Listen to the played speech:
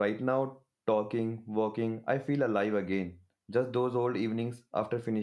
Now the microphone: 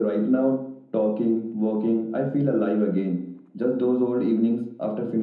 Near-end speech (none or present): none